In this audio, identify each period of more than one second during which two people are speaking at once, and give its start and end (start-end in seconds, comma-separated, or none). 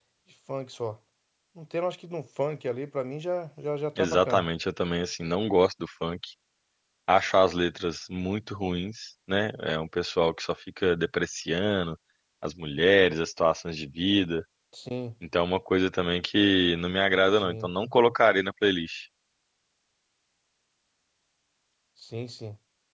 none